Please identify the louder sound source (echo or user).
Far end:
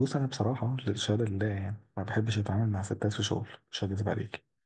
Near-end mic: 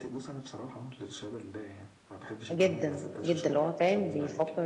user